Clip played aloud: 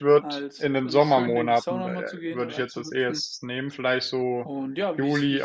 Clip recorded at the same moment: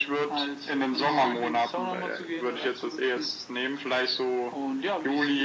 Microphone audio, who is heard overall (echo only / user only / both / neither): echo only